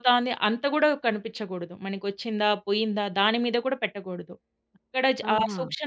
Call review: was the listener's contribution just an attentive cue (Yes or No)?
Yes